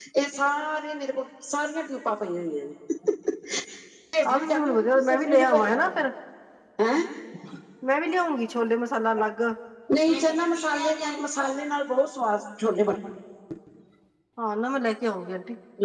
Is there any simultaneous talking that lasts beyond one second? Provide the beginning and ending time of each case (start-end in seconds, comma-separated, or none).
4.3-6.0